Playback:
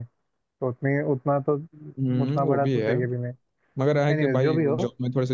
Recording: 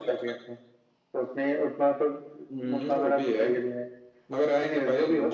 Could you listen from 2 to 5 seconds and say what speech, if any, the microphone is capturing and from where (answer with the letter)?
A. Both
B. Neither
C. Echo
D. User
C